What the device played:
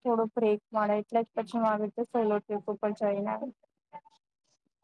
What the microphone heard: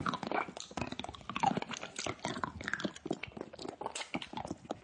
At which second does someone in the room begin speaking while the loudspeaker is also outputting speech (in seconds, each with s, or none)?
none